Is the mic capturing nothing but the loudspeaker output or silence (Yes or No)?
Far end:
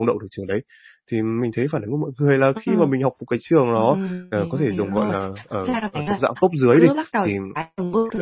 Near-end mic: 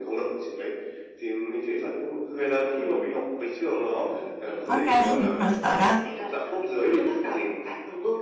No